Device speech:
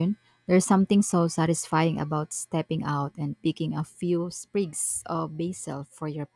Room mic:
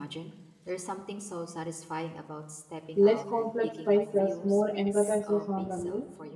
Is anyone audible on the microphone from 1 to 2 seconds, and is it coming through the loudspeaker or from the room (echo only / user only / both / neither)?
echo only